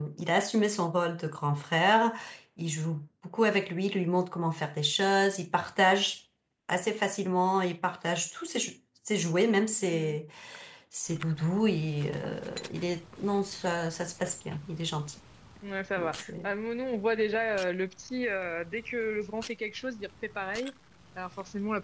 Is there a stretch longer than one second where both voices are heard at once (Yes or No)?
No